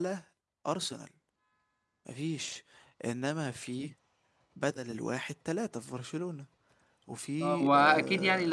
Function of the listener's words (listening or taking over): taking over